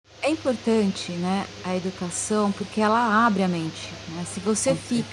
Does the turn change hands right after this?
No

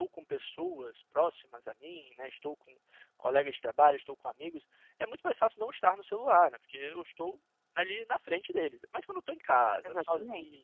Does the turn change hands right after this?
No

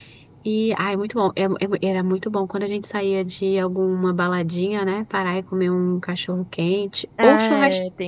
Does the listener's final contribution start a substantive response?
Yes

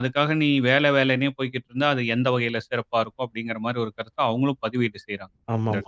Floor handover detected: Yes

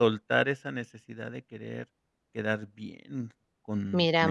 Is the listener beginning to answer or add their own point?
Yes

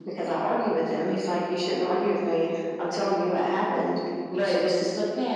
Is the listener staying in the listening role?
No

